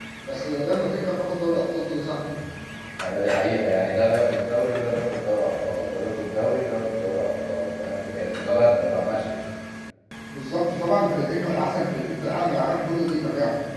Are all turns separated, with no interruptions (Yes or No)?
Yes